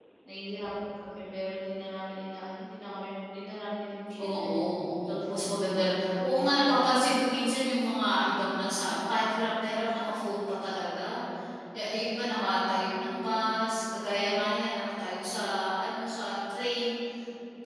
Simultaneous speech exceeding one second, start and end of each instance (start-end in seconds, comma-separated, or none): 5.1-6.8